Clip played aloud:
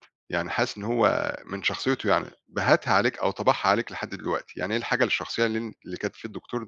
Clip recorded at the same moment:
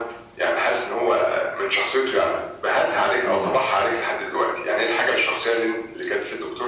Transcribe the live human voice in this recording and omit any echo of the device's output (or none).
إمم.